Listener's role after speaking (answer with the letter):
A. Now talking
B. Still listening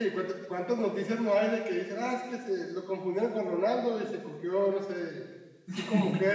B